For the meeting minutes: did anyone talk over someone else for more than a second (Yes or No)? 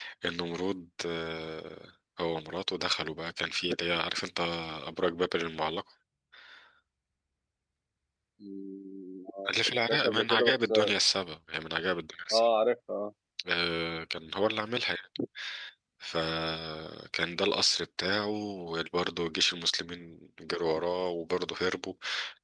Yes